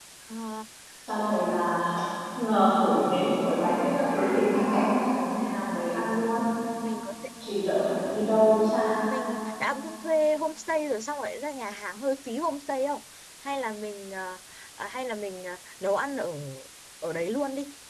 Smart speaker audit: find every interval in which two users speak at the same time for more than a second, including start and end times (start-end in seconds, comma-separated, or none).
none